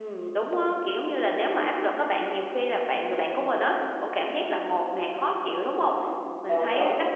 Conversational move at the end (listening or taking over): listening